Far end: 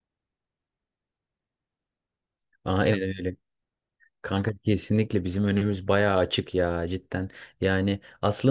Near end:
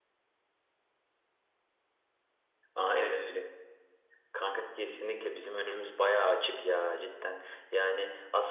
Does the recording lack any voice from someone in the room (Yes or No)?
Yes